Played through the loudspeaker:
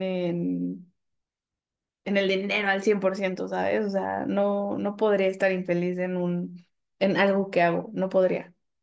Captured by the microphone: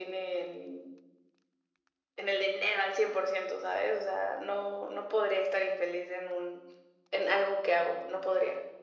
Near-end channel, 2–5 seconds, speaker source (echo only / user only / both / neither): echo only